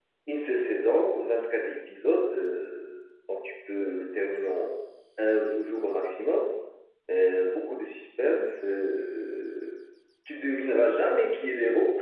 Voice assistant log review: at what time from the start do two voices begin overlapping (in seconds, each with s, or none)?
none